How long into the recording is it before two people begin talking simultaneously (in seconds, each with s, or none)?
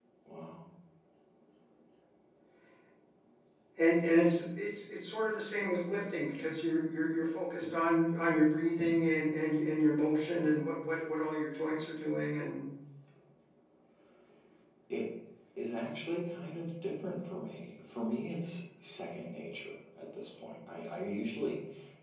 none